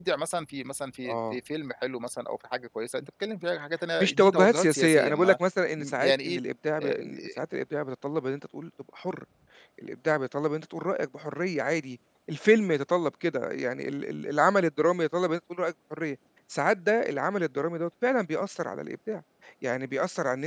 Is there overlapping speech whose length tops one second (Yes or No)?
Yes